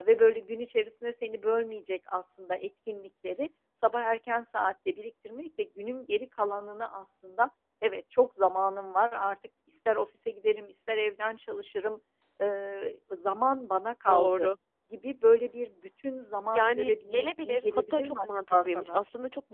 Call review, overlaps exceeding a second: present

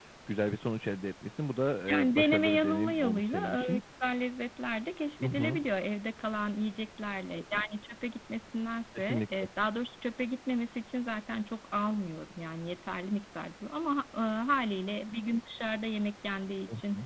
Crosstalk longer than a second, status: present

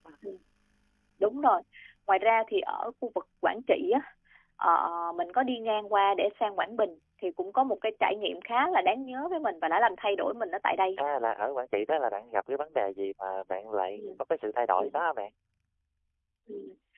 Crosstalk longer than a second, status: none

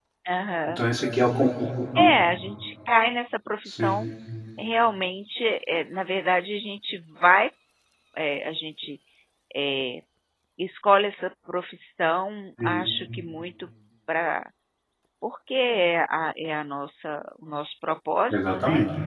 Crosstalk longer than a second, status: none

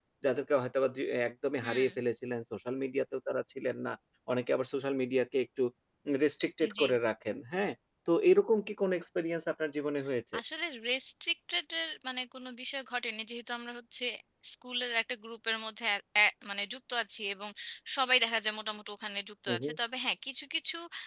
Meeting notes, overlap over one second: none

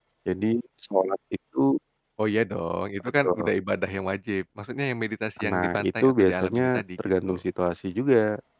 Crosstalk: present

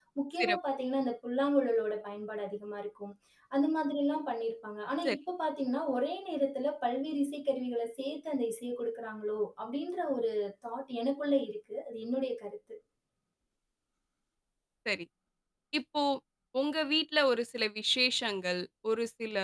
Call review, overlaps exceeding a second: none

